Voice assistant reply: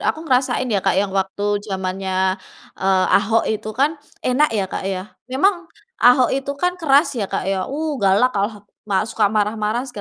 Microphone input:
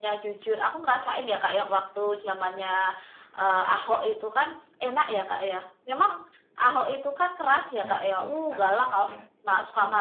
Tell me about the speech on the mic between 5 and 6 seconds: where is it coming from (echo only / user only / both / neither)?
echo only